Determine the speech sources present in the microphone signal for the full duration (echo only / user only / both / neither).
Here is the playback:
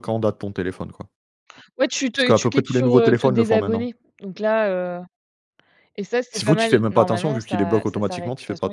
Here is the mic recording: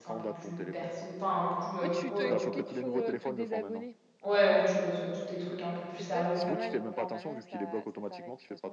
both